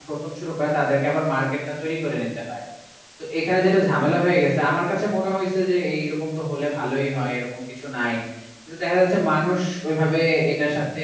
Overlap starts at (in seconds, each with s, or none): none